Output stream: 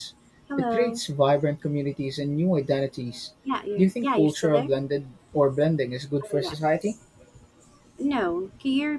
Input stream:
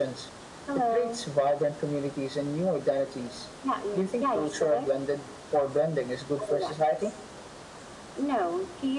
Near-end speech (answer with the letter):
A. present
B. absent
B